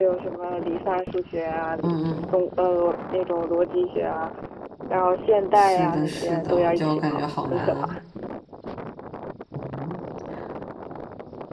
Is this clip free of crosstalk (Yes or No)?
No